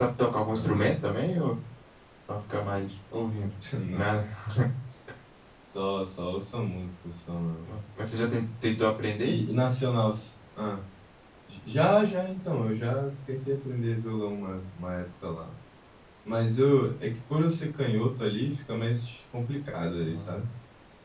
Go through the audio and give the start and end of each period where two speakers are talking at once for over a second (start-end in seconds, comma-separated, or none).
none